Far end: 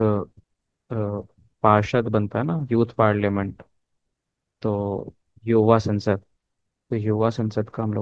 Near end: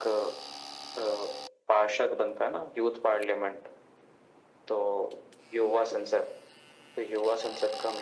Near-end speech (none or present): none